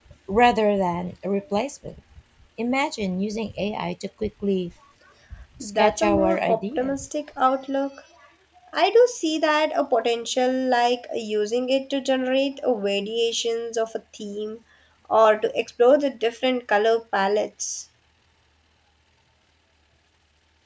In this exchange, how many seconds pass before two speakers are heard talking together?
5.6 s

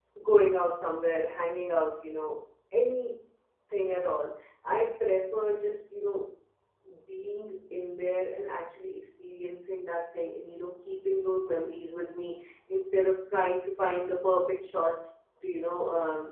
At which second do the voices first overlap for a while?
none

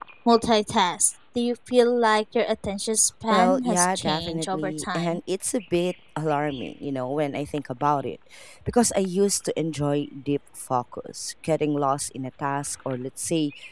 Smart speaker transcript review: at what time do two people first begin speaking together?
3.3 s

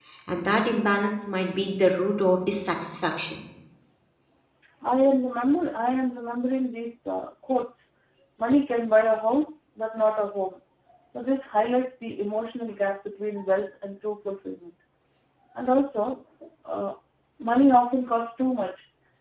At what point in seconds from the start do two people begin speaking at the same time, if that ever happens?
none

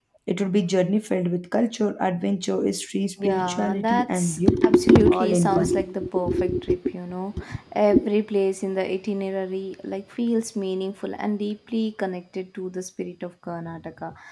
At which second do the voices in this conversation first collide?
3.2 s

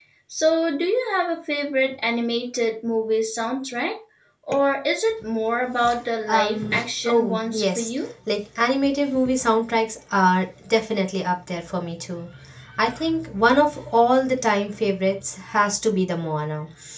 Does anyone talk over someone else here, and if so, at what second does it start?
6.3 s

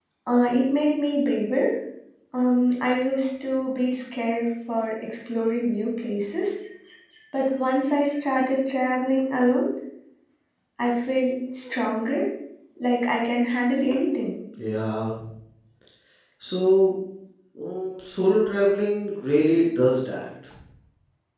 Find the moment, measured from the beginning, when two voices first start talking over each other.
none

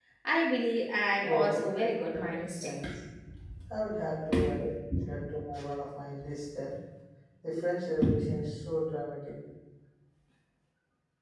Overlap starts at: 1.2 s

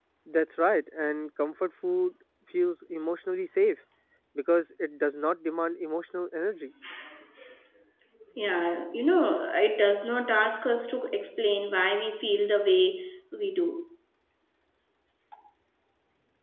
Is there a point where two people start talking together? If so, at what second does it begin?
none

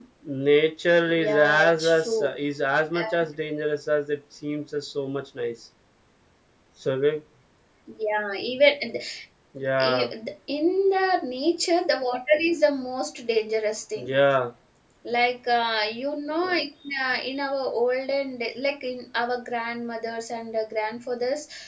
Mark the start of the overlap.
0.9 s

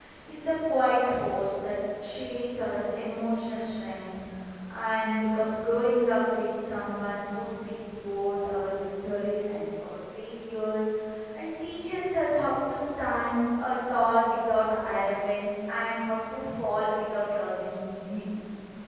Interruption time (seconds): none

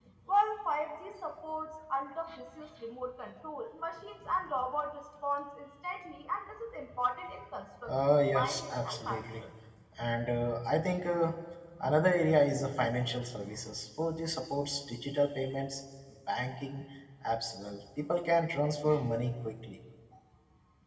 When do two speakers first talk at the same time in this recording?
7.9 s

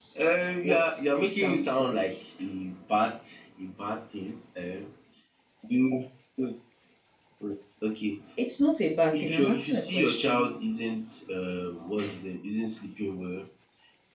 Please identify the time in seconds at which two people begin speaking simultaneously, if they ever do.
0.6 s

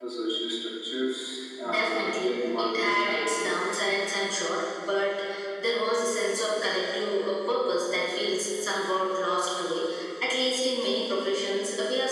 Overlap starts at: 1.6 s

